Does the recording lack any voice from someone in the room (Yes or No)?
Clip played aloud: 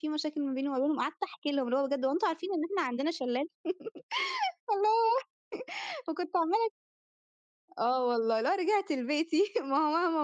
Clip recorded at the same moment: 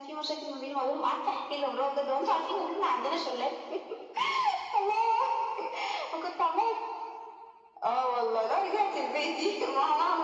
Yes